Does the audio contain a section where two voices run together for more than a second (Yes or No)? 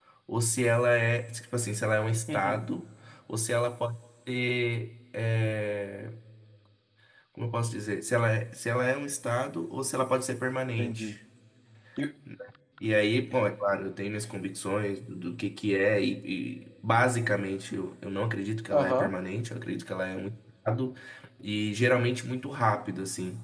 No